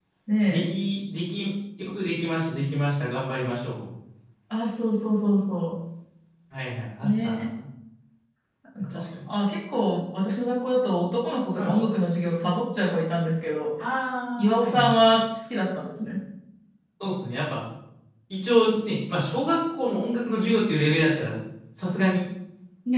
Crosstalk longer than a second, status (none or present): none